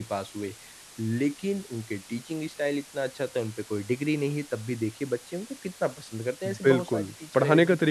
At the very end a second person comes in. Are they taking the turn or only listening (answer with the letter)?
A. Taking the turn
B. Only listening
A